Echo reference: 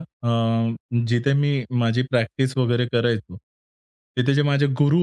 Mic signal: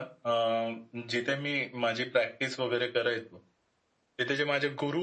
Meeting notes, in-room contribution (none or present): none